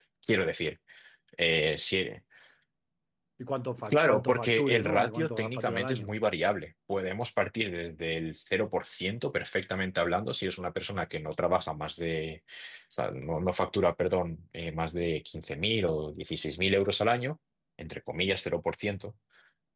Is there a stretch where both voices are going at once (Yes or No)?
Yes